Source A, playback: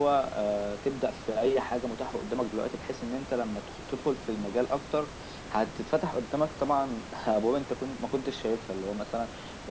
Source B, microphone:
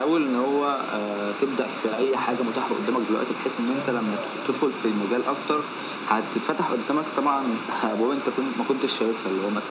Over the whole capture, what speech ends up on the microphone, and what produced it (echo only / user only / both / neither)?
both